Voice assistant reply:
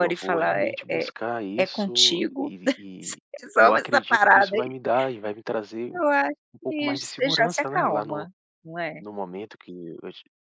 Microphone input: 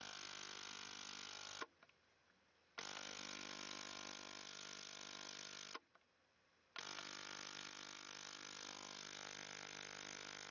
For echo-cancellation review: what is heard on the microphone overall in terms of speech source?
neither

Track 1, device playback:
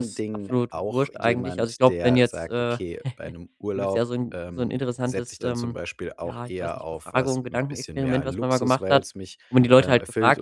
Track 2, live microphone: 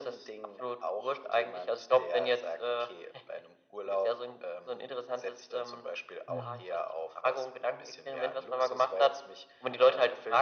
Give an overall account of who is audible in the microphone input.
both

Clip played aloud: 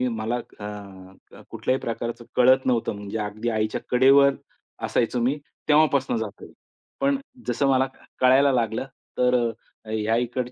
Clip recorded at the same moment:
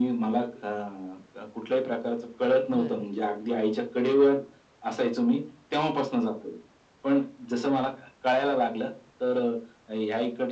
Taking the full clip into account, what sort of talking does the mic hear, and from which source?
both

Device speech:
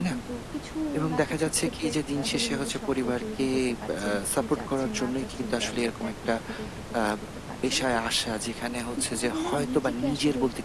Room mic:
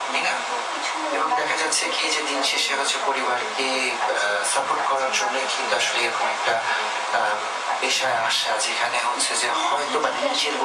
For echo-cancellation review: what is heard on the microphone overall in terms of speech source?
echo only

